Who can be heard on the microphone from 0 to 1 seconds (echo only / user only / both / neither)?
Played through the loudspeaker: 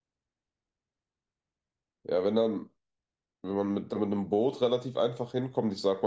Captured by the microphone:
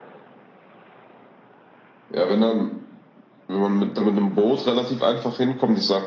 neither